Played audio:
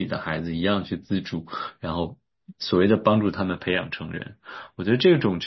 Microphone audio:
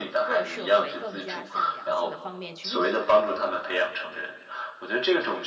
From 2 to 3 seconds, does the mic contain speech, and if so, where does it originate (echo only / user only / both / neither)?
both